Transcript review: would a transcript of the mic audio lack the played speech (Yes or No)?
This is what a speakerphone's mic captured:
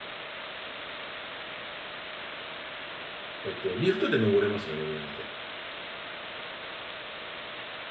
Yes